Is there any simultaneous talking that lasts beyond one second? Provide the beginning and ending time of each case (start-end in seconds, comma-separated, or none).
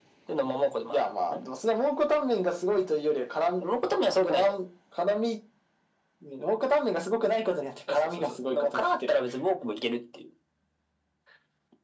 7.9-9.2